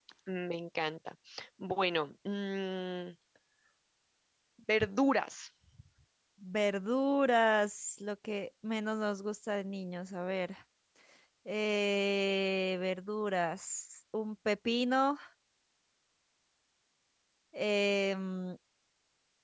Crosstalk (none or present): none